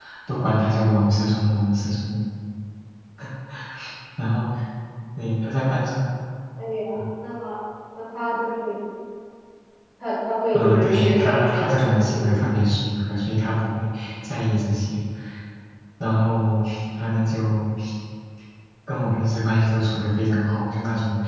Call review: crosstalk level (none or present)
present